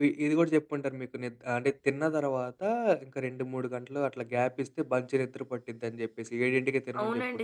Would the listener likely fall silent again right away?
No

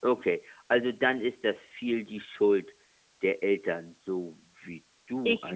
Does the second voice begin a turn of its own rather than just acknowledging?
Yes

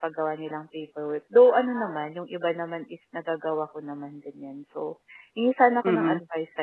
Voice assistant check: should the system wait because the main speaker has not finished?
Yes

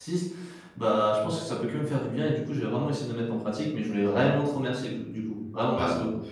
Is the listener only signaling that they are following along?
No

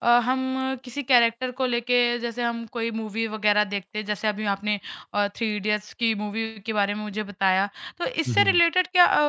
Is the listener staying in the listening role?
Yes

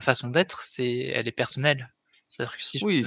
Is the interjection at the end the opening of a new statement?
Yes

